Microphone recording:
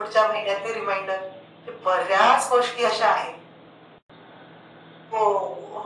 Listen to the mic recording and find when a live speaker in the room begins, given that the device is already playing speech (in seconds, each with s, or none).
none